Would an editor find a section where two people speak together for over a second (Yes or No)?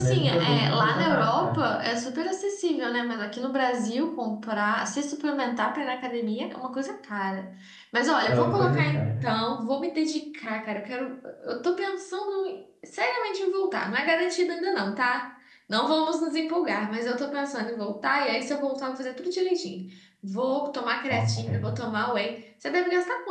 Yes